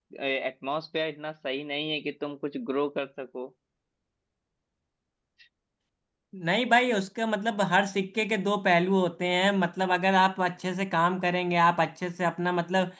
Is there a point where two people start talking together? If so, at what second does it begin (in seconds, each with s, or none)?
none